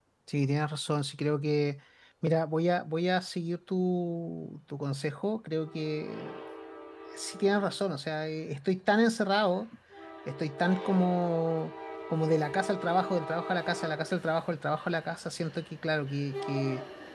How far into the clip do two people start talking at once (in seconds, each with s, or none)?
none